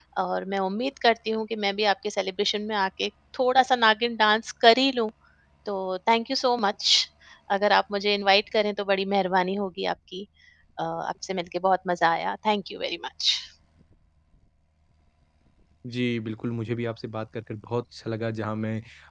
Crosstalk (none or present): none